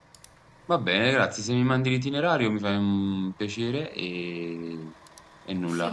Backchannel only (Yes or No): No